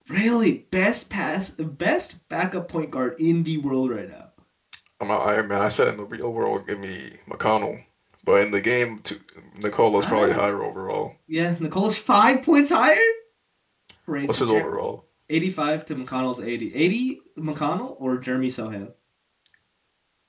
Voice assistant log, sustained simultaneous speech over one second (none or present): none